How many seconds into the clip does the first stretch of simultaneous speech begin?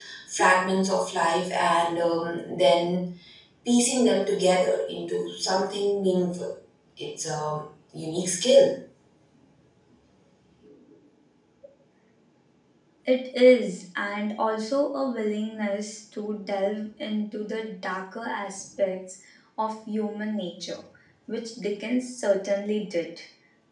none

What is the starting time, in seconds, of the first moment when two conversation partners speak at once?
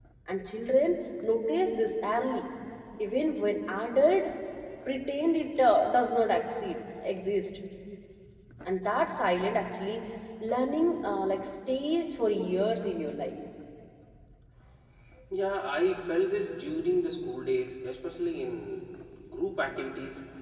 none

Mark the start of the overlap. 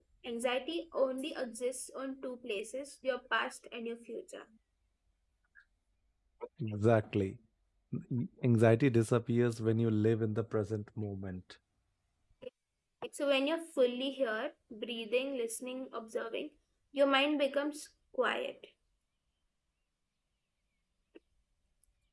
none

